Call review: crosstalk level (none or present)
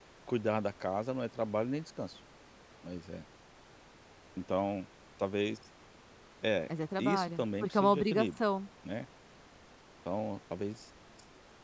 present